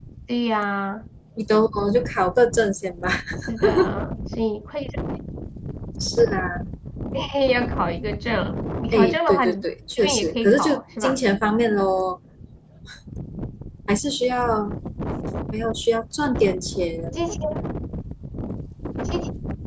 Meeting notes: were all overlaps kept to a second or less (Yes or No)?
No